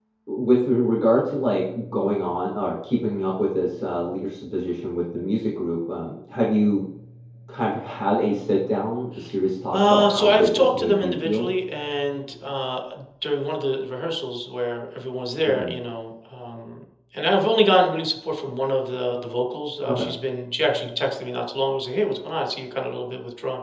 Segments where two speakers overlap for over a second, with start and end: 9.7-11.5

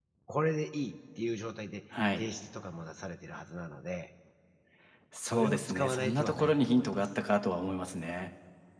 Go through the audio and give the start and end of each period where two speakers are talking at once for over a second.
5.2-7.1

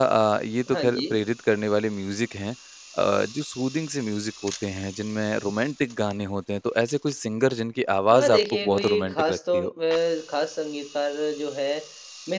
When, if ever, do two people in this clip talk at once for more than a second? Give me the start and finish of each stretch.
8.1-9.7

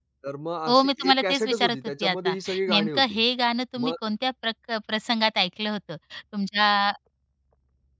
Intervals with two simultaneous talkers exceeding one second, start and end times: 0.7-3.2

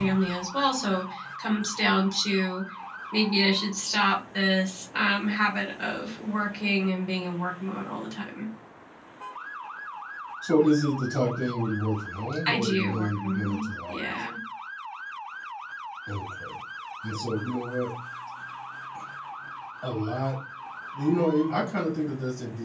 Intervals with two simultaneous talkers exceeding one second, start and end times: 12.5-14.0

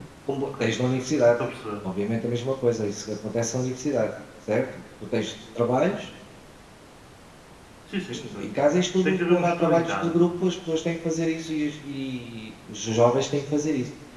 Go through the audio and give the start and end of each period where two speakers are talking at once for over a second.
9.0-10.3

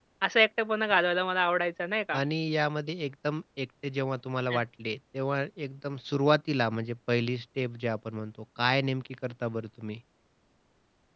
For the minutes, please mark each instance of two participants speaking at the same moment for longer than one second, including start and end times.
none

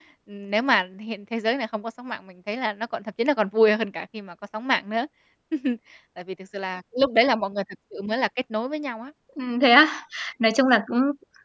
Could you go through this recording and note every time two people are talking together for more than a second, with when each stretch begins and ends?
none

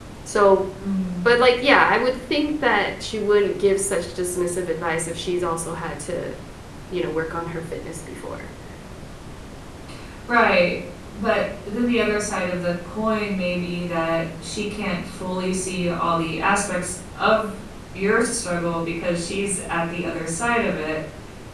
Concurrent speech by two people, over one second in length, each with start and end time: none

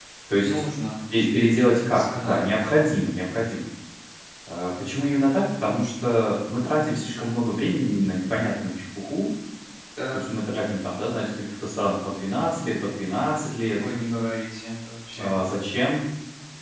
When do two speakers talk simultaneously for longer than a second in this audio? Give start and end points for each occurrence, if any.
1.1-2.6

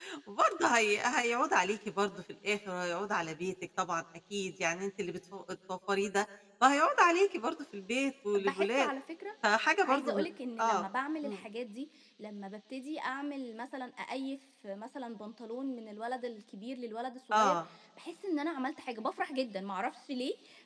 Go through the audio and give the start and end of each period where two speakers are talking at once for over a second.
none

